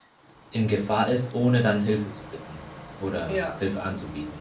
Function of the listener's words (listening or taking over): listening